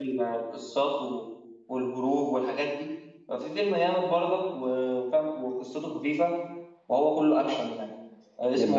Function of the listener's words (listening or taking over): listening